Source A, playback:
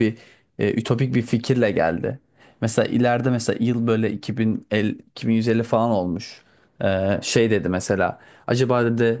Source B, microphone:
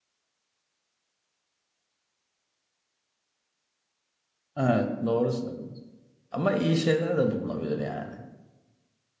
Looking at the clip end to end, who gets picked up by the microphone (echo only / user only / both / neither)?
user only